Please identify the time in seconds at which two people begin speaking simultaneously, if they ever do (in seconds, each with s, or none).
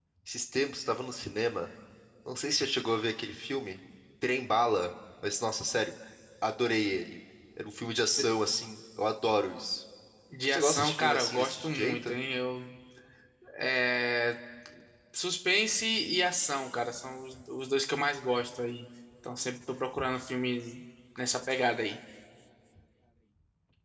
10.5 s